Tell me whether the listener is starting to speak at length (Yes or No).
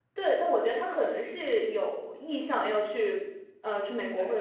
Yes